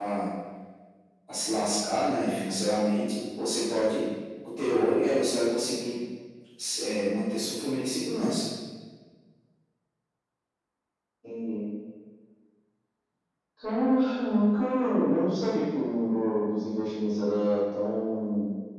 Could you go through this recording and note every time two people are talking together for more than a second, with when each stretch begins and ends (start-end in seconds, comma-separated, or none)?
none